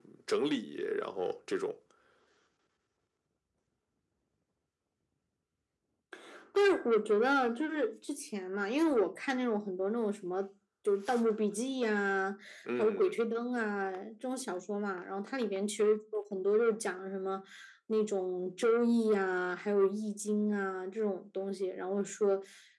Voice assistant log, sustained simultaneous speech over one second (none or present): none